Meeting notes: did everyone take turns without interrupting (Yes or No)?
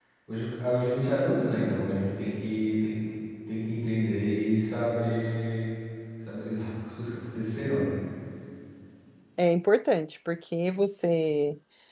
Yes